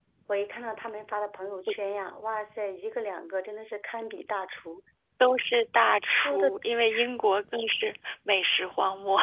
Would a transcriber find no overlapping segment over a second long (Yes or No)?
Yes